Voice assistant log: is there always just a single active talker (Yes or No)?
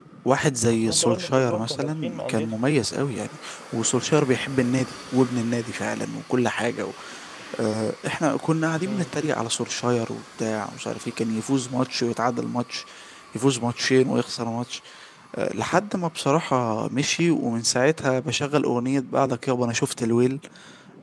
No